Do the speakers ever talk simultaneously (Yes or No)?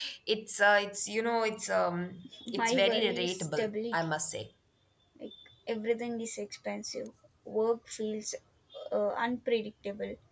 Yes